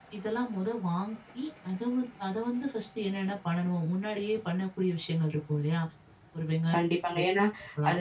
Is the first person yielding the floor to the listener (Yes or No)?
Yes